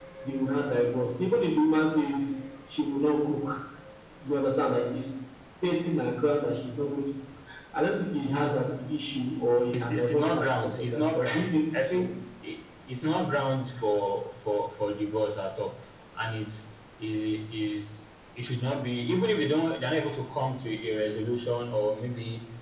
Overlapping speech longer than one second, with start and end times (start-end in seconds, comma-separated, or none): 9.7-12.1